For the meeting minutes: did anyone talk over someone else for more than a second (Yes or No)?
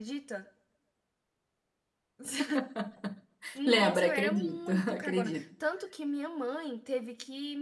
Yes